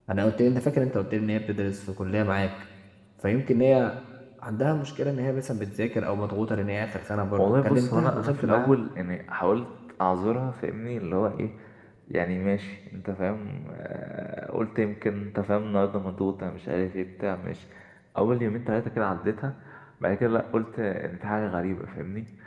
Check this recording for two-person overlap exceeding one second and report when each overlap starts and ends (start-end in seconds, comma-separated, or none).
7.4-8.7